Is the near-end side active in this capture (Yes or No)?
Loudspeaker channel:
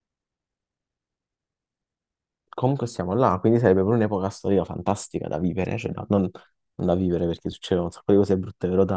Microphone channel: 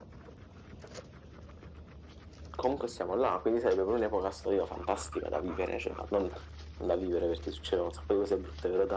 No